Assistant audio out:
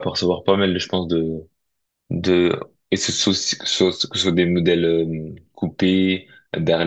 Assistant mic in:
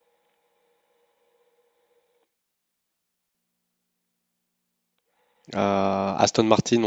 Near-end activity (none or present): present